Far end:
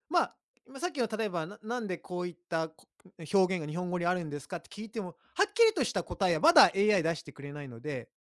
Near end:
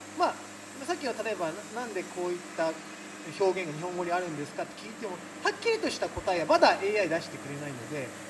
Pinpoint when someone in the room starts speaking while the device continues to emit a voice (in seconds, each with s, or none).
none